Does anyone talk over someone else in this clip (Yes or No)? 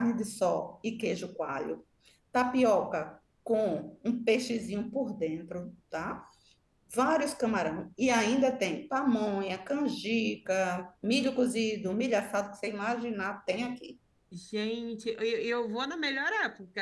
No